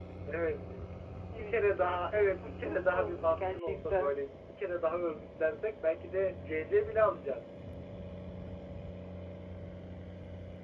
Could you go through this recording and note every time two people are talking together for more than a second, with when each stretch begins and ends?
1.4-4.2

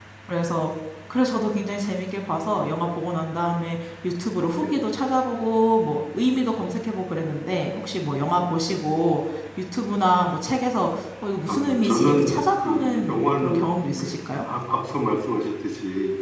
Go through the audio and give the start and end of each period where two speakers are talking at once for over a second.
11.5-13.6

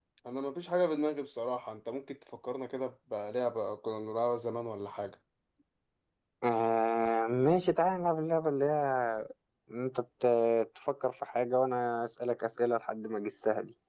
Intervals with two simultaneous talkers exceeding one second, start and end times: none

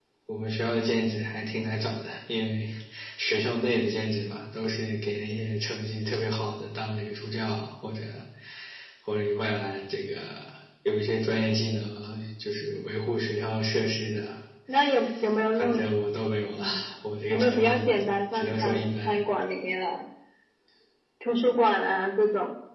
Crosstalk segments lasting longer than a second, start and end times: 17.3-19.2

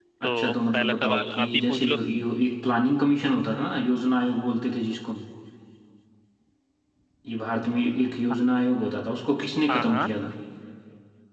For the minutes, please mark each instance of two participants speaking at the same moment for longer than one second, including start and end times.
0.7-2.0

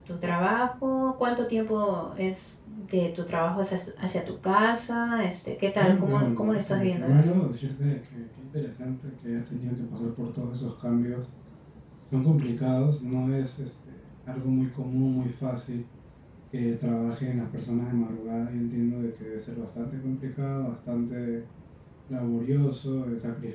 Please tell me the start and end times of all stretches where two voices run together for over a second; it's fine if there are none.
5.8-7.3

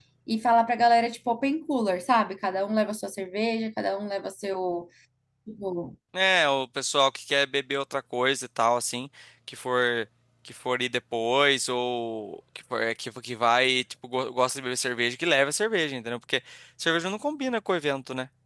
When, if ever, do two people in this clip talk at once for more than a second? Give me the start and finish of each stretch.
none

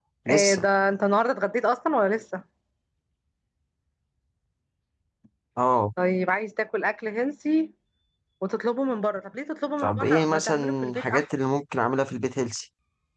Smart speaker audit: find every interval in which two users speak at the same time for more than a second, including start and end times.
9.8-11.3

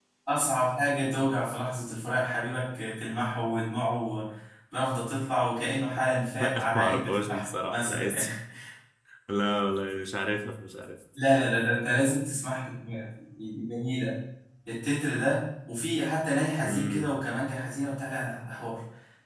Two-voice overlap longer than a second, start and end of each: 6.4-8.2

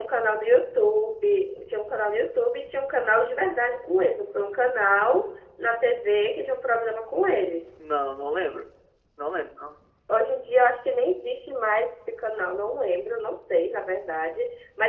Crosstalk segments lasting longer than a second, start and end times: none

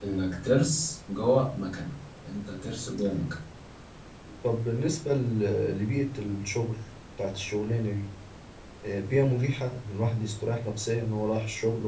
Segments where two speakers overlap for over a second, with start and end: none

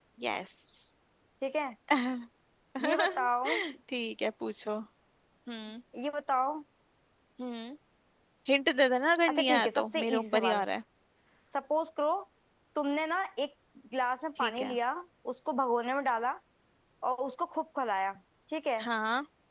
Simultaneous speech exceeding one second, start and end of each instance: 9.3-10.6

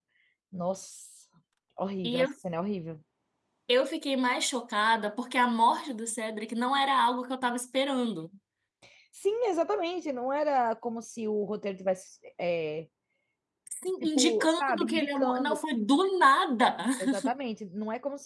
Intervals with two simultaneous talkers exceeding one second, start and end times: 14.0-15.6

